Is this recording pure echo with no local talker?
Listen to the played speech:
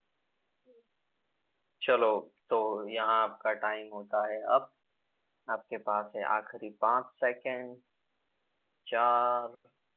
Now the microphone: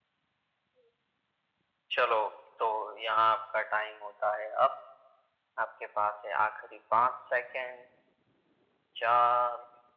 Yes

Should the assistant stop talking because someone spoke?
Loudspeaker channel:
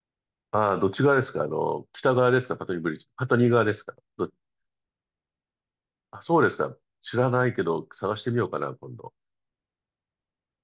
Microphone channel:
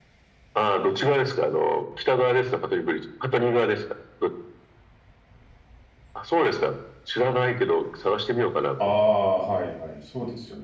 Yes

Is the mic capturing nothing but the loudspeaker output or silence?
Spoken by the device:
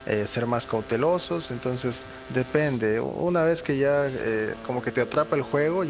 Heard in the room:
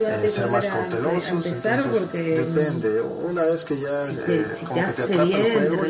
No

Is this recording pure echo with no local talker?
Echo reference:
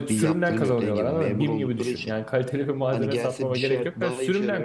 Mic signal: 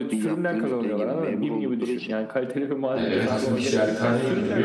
No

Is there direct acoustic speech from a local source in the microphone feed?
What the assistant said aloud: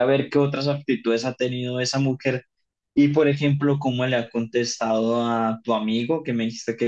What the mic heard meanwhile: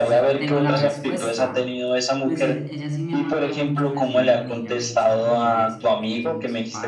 Yes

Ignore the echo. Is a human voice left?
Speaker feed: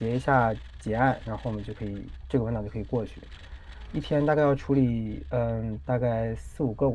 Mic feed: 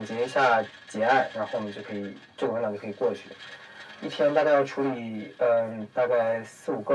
No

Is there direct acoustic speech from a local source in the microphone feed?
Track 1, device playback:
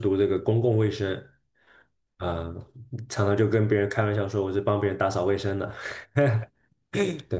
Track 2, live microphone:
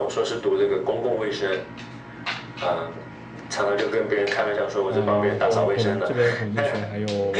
Yes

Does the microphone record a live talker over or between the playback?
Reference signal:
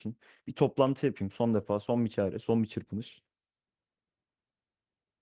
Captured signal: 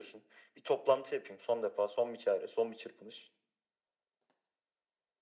No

